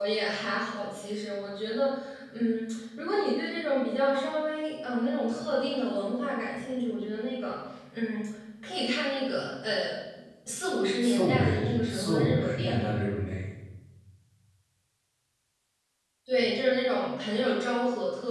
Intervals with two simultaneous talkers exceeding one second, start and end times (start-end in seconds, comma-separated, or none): 11.0-12.9